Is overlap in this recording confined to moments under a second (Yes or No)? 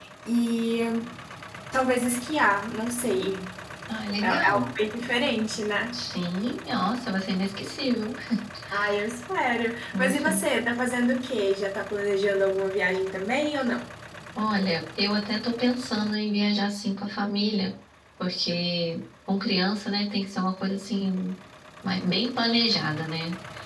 Yes